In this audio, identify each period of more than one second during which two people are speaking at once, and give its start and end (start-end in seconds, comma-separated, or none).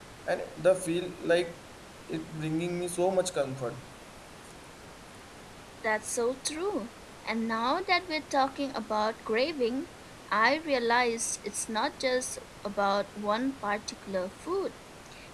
none